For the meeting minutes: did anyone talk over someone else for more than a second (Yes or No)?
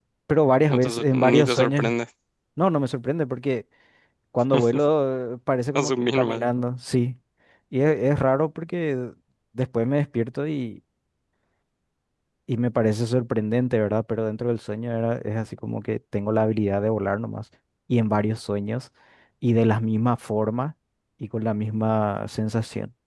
Yes